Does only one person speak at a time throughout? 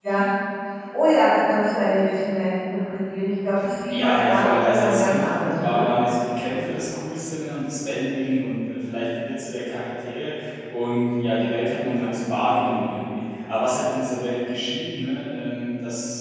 No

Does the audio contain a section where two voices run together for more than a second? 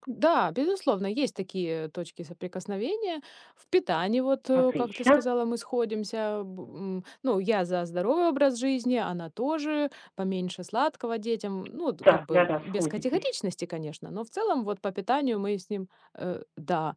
Yes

